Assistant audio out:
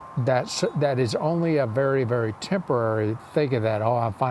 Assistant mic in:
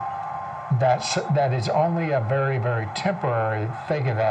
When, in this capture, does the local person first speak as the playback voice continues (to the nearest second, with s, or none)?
none